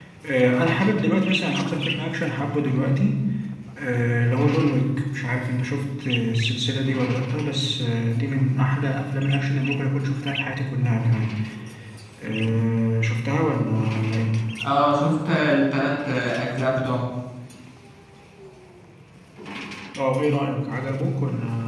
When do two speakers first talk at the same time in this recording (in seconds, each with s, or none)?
none